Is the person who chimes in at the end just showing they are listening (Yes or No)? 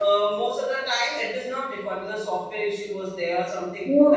No